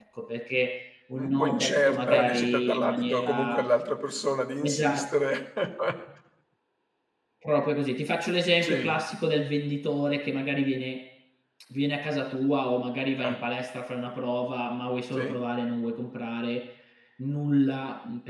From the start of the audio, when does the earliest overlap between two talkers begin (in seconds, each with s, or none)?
1.2 s